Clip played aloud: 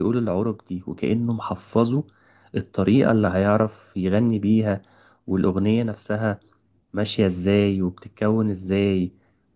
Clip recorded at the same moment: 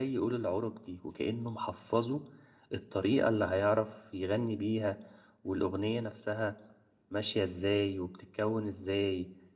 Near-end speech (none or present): none